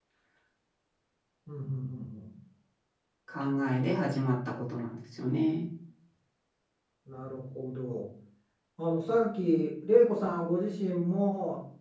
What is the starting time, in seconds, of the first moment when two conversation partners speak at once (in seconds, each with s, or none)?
none